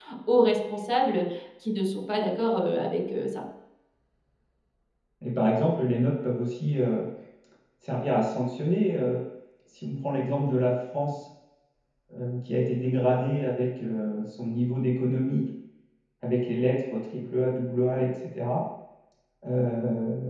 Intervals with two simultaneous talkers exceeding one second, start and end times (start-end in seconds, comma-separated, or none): none